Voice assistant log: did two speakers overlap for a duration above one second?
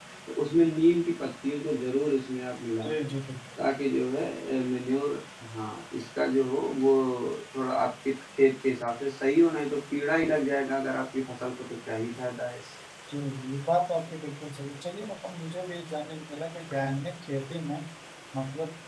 No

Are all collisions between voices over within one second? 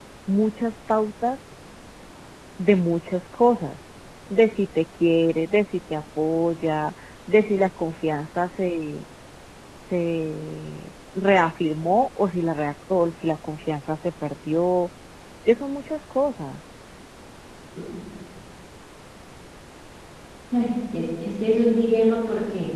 Yes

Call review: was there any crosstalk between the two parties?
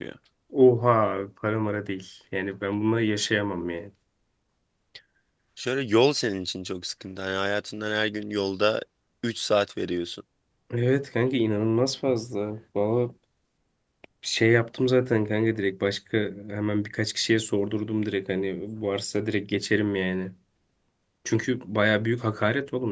No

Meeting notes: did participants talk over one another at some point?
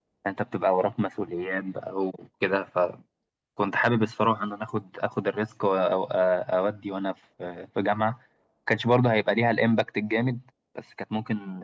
No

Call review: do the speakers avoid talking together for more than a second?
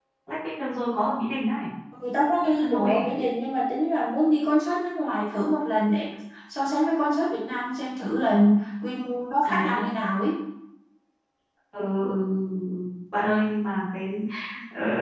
Yes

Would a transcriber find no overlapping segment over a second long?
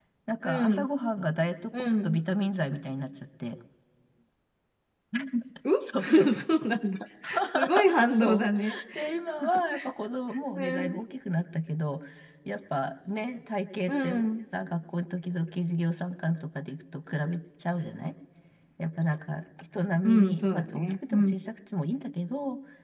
No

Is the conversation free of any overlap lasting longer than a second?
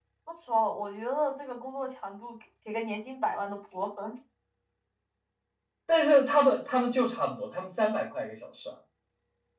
Yes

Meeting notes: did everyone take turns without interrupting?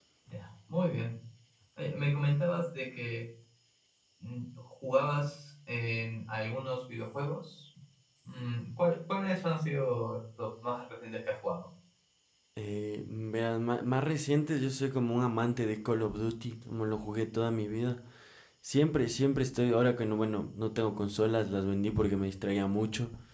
Yes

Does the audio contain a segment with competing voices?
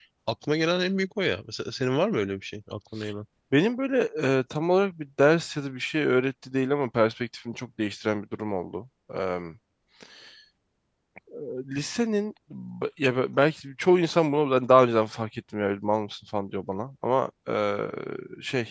No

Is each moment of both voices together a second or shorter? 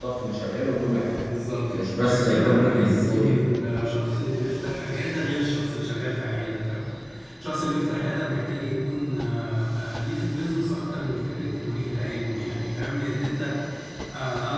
No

